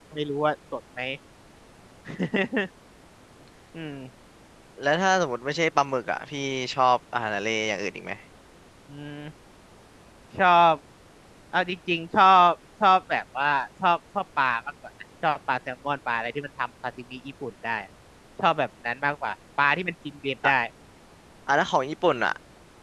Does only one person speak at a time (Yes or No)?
Yes